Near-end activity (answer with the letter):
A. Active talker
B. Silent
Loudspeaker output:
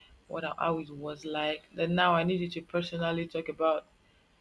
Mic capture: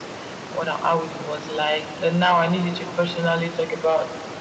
B